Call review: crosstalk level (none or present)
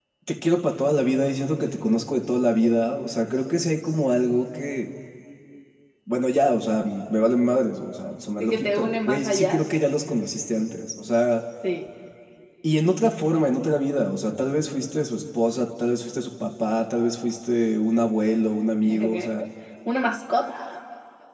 present